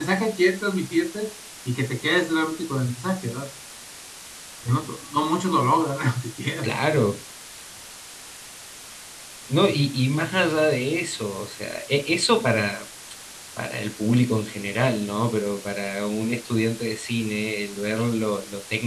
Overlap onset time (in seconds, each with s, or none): none